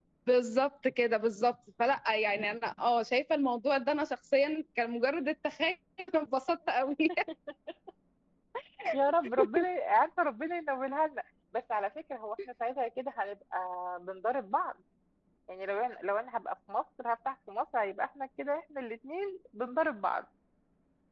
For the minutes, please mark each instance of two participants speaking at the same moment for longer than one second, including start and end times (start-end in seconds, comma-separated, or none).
none